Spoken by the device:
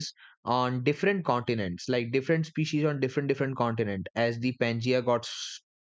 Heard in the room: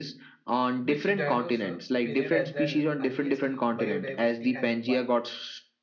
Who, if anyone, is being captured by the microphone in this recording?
both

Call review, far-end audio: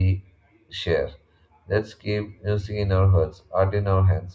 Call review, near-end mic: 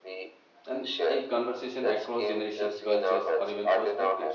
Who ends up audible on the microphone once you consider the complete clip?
both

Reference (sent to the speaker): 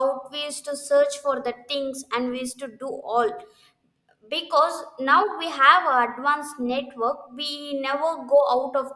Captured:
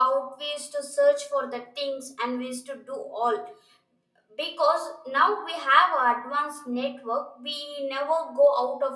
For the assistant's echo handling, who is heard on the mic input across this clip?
echo only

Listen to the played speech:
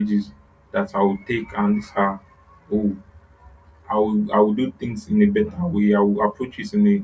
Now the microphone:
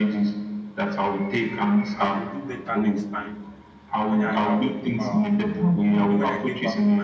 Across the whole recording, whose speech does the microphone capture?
both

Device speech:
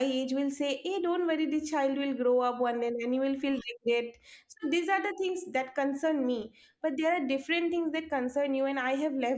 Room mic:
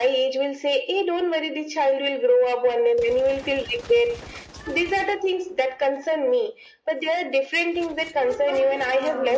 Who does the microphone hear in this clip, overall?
both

